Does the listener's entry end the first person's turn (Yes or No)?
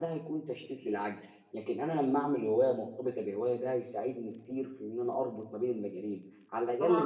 Yes